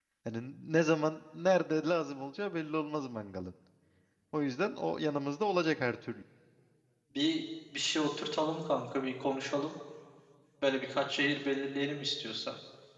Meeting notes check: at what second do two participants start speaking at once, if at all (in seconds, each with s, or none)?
none